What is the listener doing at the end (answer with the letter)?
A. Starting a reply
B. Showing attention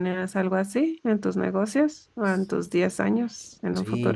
A